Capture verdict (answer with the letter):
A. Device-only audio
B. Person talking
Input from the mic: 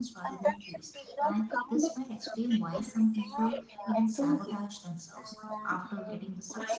B